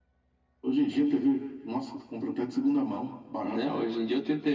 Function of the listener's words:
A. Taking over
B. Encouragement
A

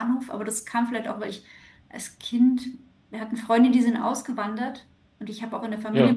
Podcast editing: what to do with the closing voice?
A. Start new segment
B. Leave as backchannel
B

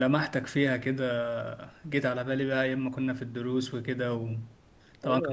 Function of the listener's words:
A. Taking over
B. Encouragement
A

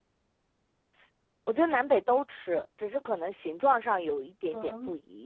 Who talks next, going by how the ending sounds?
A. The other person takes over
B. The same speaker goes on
A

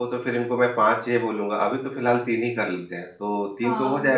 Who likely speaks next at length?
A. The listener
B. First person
A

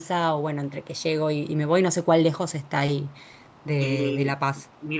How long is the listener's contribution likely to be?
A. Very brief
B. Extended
B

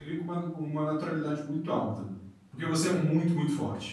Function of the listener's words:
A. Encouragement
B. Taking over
A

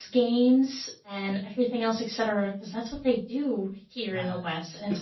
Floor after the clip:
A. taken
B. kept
A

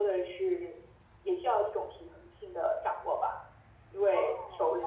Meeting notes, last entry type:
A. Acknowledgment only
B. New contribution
A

